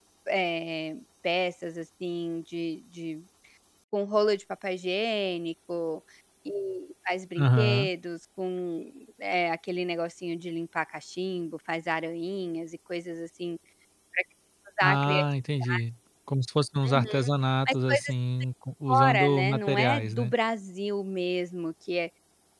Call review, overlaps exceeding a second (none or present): present